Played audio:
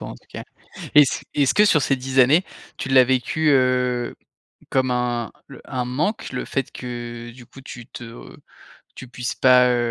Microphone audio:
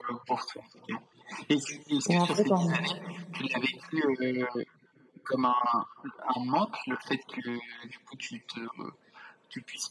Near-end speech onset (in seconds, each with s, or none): 2.0 s